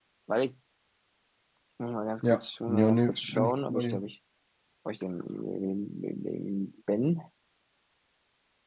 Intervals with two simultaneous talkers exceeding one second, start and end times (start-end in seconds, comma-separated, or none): 2.3-4.0